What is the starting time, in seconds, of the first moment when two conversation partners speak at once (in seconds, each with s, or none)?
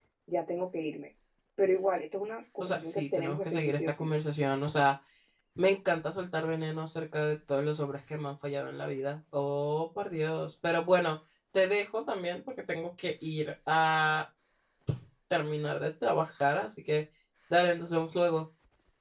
2.6 s